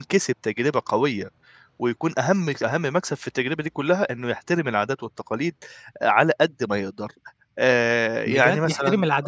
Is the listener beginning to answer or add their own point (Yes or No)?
Yes